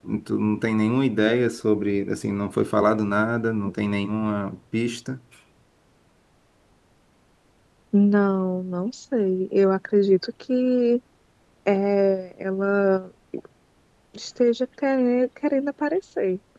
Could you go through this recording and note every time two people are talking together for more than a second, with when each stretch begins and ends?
none

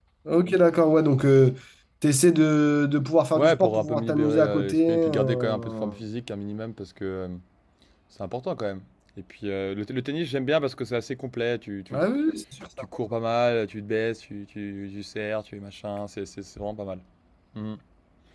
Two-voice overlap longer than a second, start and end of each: 3.4-5.9

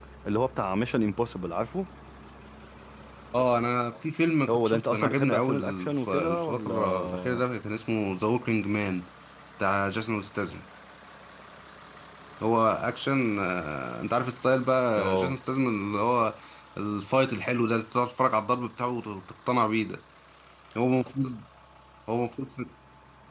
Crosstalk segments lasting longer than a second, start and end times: 4.5-7.4

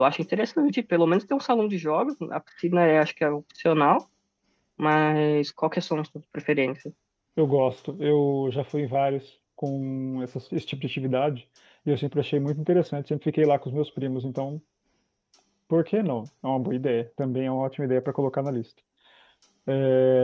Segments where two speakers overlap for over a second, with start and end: none

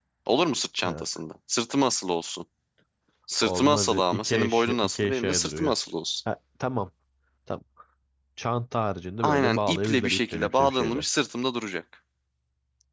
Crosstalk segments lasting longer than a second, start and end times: 3.4-5.7, 9.2-11.0

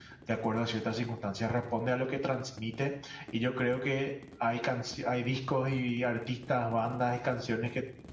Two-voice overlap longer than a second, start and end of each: none

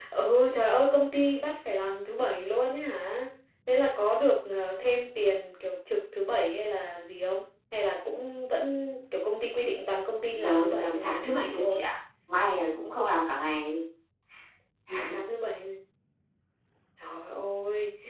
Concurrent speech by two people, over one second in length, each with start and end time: 10.3-11.8

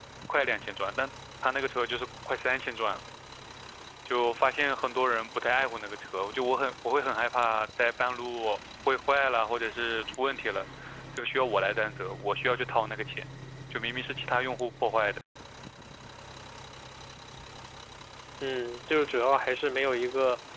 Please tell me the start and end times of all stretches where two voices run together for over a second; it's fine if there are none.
none

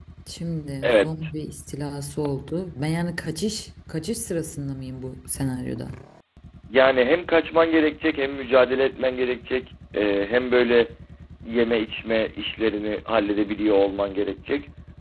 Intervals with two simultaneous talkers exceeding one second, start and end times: none

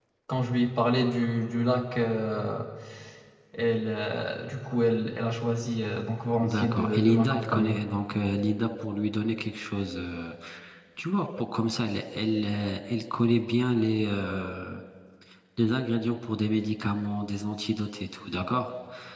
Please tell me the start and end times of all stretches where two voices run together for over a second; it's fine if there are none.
6.4-7.8

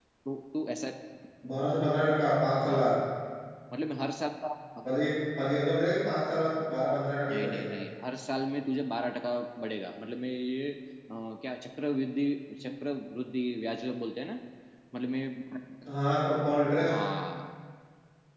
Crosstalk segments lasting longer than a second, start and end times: none

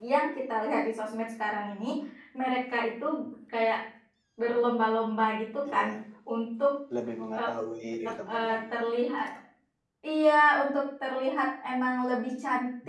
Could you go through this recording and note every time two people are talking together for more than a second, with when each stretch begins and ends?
none

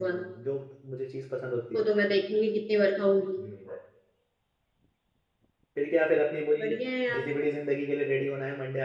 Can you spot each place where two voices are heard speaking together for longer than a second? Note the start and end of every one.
none

